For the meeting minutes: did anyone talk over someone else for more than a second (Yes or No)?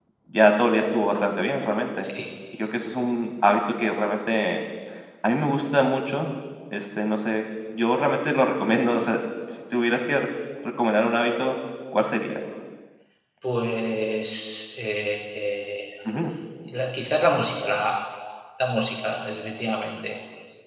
No